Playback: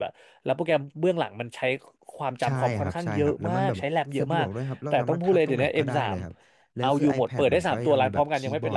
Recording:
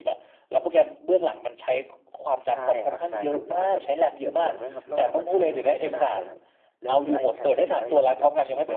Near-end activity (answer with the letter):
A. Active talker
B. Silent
A